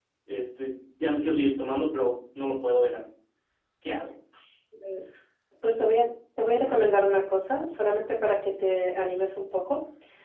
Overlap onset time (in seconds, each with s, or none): none